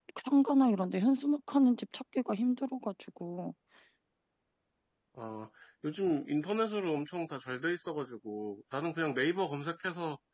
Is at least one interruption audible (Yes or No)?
No